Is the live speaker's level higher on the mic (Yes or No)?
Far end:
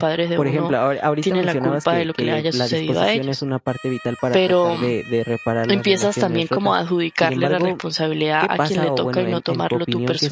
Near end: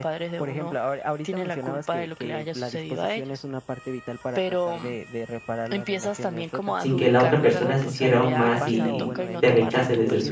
Yes